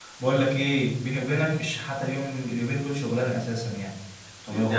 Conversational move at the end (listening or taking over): taking over